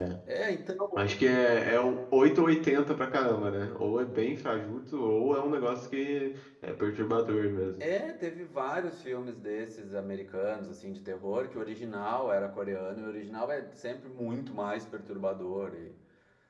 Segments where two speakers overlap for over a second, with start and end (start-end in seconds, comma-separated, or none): none